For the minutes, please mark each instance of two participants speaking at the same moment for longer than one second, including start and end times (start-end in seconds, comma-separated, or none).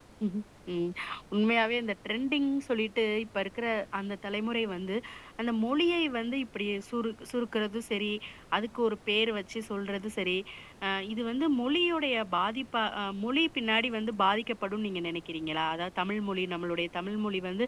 none